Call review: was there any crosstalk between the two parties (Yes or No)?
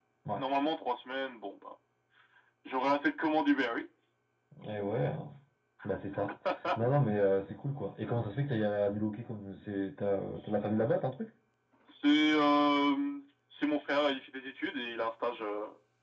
No